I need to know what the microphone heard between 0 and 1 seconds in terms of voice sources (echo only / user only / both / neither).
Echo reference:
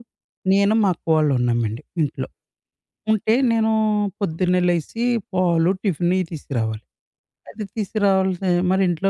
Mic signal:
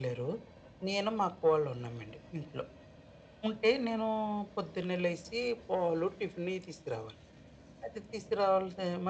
echo only